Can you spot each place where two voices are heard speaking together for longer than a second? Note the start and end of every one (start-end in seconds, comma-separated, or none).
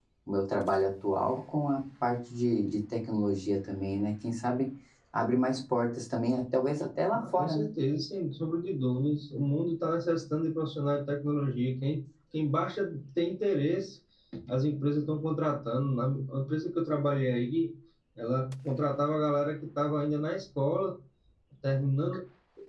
none